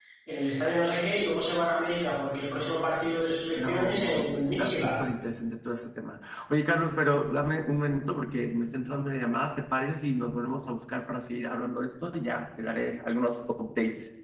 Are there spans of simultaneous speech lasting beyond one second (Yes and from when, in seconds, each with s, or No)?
Yes, from 3.6 s